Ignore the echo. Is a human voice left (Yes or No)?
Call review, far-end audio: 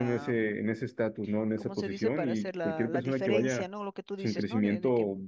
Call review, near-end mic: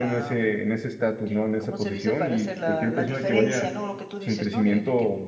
No